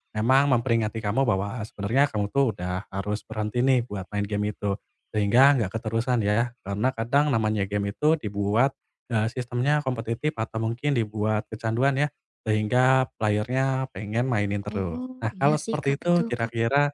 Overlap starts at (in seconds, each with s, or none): 14.7 s